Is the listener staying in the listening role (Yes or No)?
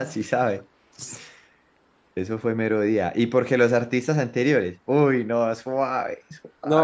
No